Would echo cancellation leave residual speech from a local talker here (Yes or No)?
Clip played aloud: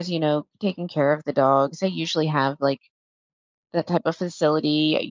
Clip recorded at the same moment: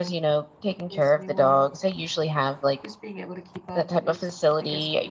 Yes